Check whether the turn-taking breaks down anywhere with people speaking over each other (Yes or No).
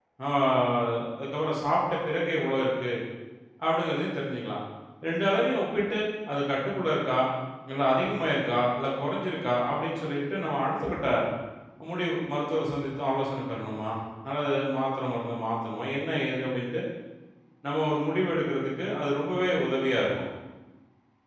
No